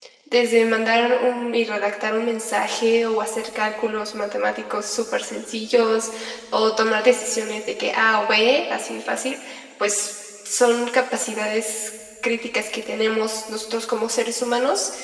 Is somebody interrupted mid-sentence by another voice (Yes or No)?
No